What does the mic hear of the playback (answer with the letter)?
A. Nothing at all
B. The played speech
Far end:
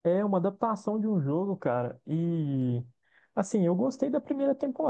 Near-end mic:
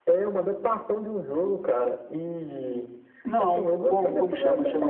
B